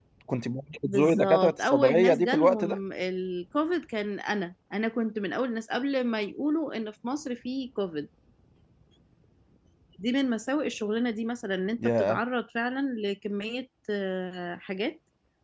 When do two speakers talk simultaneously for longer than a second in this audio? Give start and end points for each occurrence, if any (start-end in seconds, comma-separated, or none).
0.9-2.8